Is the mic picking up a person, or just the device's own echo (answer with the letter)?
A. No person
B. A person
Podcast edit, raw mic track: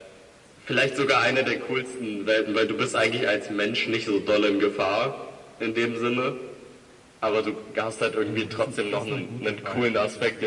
B